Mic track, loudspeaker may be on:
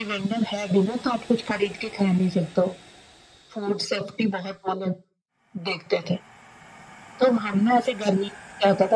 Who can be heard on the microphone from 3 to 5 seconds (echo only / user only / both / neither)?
echo only